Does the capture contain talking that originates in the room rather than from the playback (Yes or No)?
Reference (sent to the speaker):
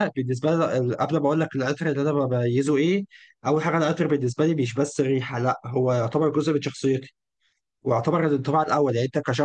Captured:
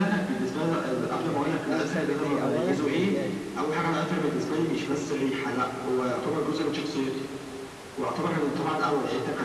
Yes